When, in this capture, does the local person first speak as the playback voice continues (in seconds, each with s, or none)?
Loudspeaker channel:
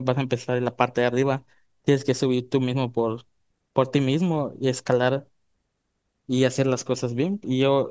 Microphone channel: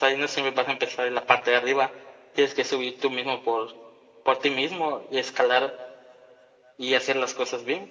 none